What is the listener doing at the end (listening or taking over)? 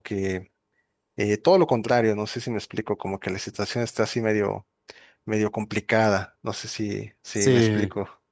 taking over